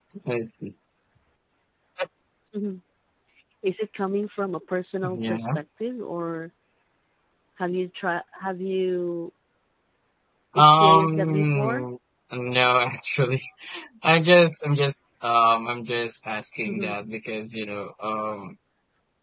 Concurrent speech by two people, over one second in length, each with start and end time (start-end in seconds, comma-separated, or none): 10.6-11.8